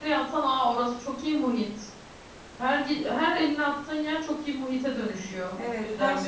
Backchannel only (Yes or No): No